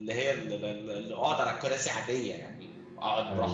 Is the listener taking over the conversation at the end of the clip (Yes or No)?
No